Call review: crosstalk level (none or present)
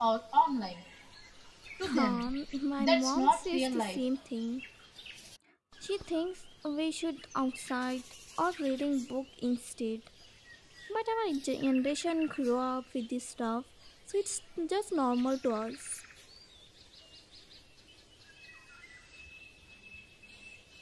present